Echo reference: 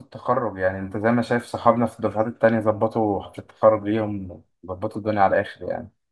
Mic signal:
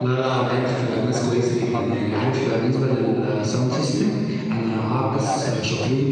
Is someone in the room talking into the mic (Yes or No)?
Yes